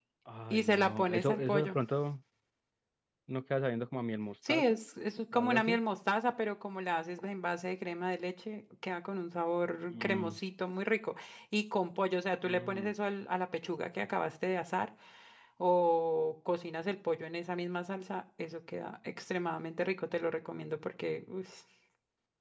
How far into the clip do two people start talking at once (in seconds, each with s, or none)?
0.5 s